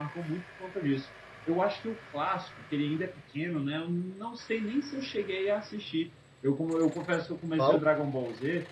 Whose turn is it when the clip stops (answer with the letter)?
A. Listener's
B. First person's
B